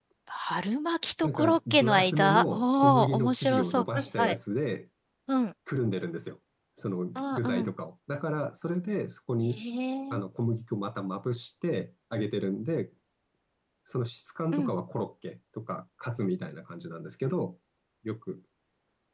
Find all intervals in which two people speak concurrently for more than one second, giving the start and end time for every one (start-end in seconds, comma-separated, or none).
1.2-4.4